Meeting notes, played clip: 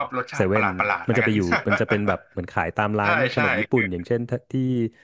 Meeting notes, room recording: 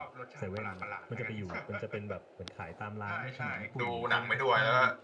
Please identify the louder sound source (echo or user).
user